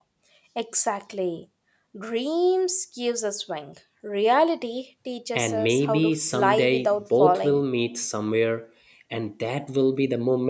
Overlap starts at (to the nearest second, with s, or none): 5 s